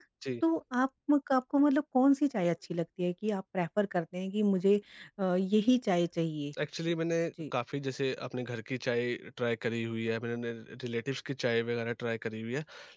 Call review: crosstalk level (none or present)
none